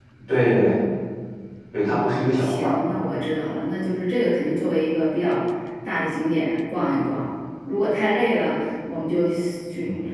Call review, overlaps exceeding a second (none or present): present